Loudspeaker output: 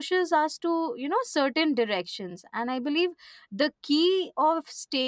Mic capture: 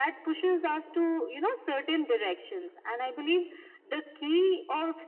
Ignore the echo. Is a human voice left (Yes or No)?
No